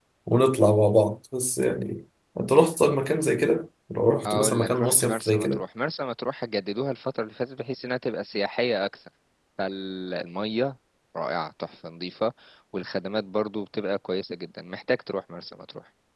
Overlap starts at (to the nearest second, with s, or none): 4 s